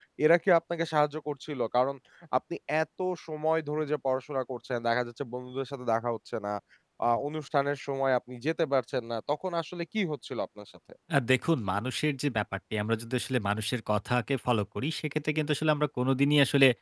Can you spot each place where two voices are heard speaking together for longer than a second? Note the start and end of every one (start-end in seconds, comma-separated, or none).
none